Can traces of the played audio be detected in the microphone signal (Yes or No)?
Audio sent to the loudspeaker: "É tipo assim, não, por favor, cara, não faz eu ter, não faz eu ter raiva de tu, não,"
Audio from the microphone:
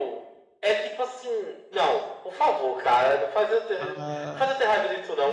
Yes